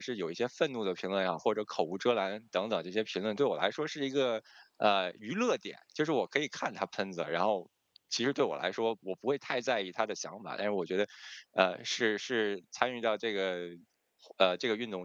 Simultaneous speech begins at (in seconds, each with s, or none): none